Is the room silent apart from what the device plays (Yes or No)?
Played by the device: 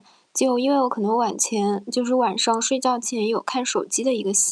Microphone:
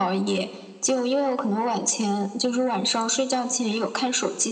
Yes